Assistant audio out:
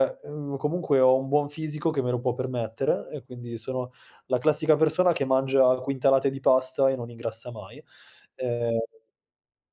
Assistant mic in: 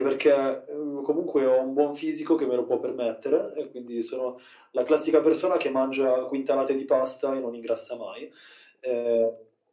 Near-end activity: none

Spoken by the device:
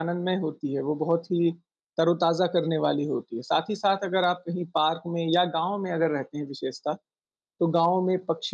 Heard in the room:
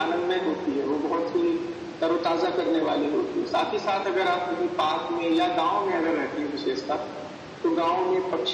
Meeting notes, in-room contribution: none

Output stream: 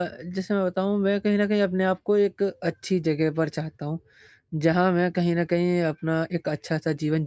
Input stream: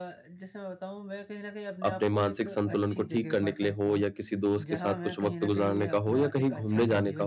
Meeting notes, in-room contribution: present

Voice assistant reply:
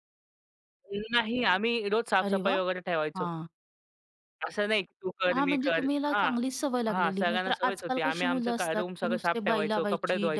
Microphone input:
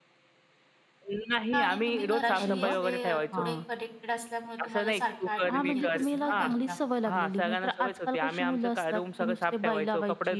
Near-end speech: present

